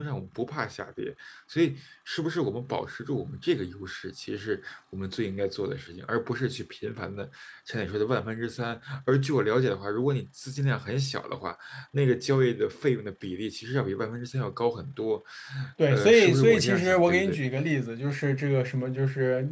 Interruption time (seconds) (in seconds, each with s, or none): 15.9 s